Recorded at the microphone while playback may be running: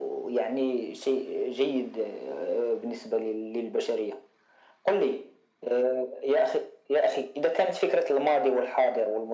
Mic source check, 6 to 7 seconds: echo only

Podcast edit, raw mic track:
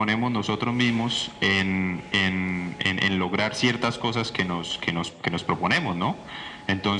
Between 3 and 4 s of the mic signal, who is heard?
echo only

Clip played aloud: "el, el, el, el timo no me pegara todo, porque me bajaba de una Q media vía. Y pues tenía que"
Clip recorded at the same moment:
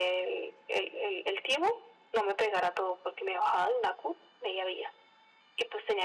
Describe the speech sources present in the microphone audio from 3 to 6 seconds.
echo only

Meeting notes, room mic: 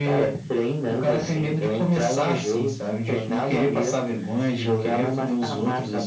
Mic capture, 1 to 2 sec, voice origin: echo only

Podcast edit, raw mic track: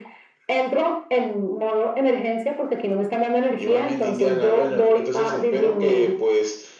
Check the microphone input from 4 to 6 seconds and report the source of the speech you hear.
echo only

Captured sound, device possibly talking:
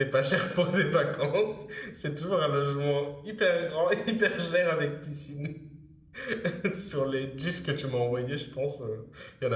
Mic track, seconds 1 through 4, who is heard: user only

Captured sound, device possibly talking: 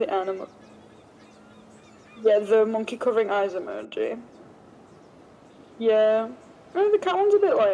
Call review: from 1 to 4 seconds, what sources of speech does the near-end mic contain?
echo only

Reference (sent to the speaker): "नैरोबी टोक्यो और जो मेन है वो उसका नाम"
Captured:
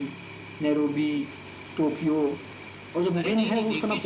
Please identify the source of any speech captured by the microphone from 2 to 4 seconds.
both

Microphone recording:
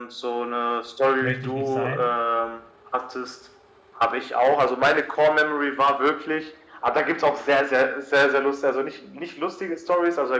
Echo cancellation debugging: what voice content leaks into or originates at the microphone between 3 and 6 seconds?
echo only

